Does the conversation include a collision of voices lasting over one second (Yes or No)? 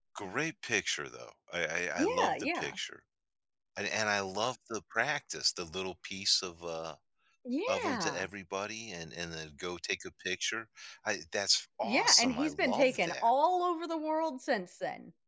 Yes